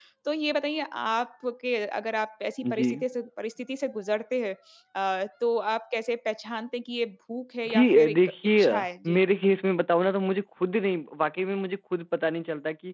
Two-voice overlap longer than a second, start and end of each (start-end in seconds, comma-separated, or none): 7.7-9.2